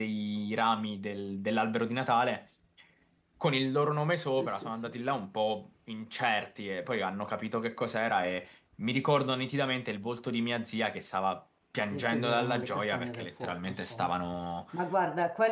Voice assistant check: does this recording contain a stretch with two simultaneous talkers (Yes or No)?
Yes